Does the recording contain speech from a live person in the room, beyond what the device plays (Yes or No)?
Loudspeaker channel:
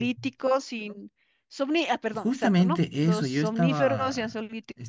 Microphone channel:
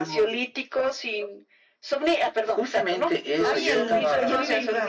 Yes